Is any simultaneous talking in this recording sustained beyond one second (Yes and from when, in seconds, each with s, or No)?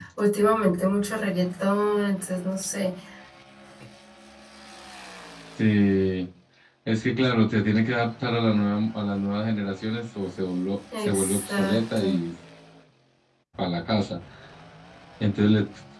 Yes, from 10.9 s